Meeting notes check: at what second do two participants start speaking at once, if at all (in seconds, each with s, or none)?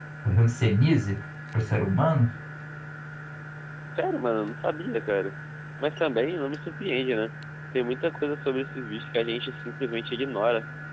none